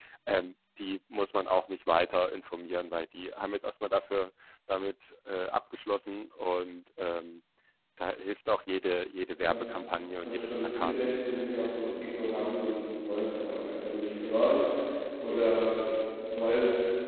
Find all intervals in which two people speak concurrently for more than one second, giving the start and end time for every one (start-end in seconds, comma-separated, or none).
10.2-11.4